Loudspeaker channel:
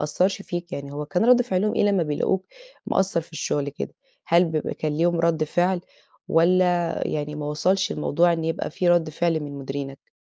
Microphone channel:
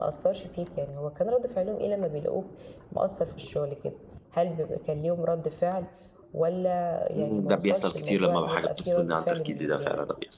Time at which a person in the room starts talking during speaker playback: 7.2 s

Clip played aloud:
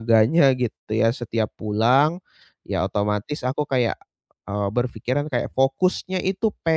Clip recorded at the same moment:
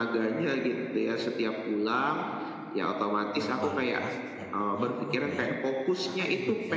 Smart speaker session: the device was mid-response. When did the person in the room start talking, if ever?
3.3 s

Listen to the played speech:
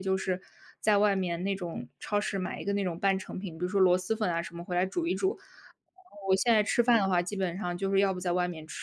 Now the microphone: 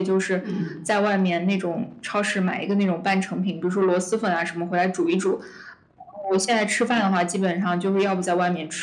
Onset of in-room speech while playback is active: 0.4 s

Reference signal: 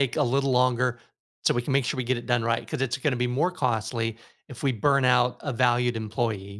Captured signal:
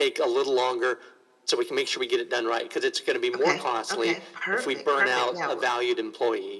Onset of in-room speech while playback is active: 3.3 s

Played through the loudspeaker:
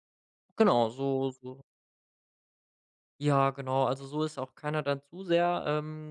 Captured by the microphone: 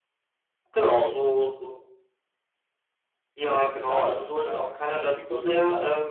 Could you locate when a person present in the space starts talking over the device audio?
3.4 s

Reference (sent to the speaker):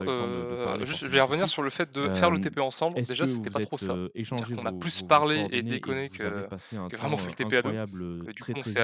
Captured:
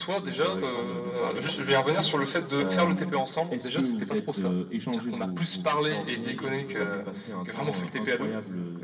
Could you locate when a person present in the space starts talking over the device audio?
none

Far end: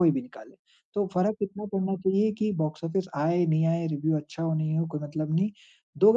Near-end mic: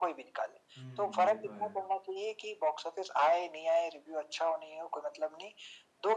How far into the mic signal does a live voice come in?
0.8 s

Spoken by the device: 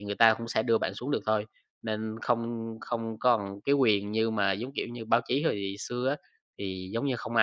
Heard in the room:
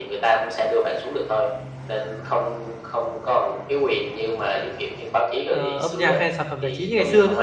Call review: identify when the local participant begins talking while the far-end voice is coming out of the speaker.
5.5 s

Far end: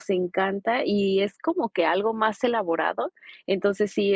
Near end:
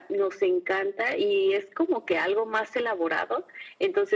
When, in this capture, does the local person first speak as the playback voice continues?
none

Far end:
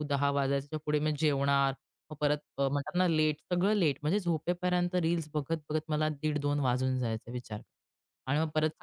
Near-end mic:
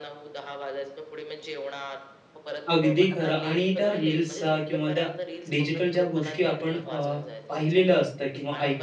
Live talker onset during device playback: 2.7 s

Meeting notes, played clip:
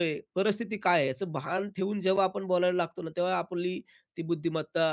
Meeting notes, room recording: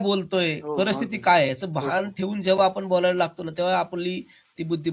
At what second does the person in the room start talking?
0.6 s

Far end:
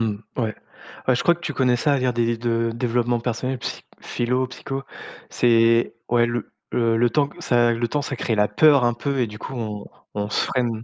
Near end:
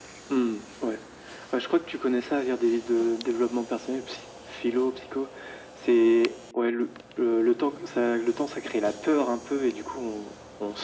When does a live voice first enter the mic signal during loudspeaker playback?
none

